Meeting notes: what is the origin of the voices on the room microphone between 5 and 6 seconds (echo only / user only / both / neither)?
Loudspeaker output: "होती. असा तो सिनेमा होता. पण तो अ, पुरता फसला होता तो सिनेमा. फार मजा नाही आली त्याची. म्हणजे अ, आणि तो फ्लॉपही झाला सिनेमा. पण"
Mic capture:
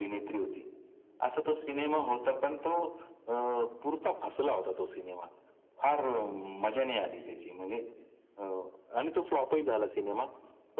echo only